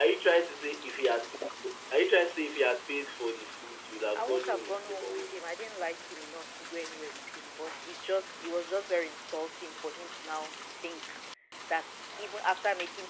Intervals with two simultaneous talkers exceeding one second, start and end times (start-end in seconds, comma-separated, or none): 4.2-5.4